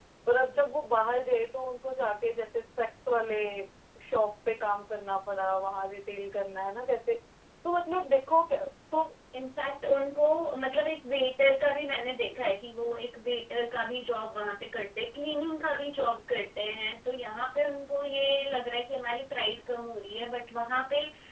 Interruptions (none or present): none